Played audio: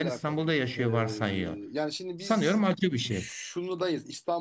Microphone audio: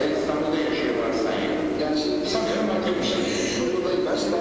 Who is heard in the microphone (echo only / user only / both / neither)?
both